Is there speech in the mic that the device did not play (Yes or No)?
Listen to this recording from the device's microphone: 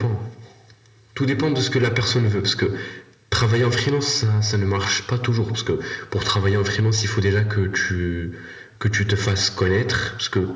No